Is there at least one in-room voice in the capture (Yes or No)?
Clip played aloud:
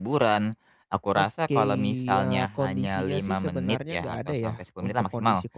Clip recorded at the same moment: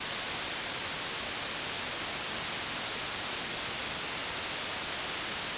No